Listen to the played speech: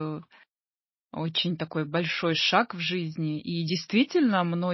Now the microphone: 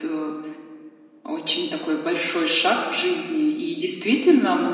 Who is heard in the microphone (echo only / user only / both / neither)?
echo only